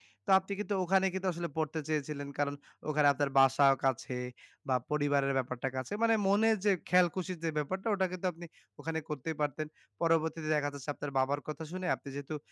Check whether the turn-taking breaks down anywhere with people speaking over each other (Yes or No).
No